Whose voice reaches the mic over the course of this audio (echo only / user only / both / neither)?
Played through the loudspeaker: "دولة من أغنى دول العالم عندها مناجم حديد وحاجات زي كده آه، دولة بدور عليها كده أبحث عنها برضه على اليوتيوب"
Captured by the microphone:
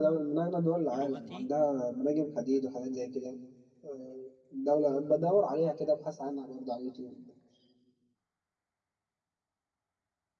both